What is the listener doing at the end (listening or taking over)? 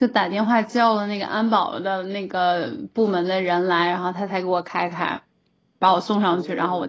listening